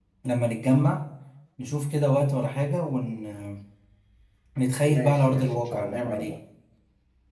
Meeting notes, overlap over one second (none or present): present